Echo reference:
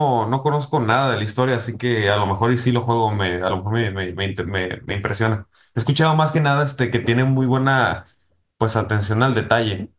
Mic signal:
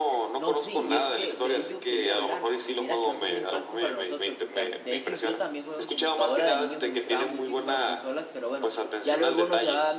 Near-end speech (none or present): present